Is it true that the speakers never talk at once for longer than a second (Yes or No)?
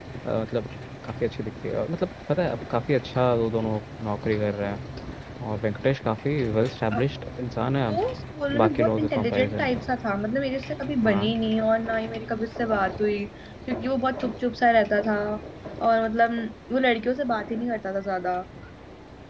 No